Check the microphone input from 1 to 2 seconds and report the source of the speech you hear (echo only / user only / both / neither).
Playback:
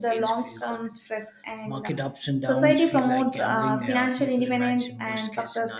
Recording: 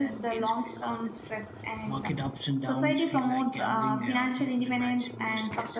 echo only